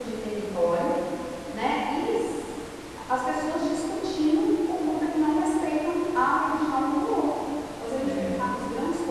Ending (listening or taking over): listening